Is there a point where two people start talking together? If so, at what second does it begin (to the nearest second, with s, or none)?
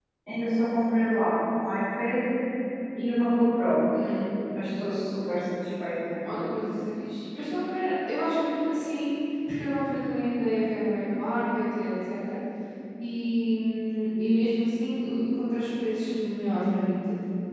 none